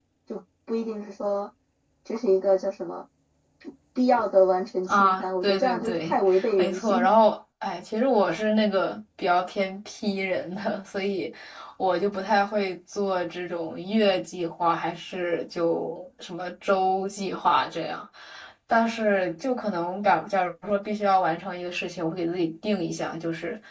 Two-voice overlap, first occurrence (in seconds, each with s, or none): 4.9 s